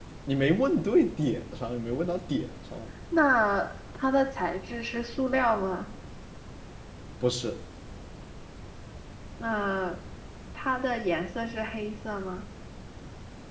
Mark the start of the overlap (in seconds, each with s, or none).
none